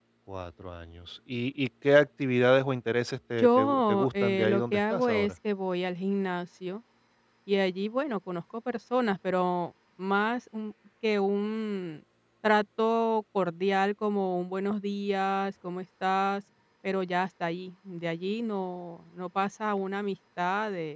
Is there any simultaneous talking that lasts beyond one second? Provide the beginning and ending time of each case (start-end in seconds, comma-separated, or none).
3.4-5.3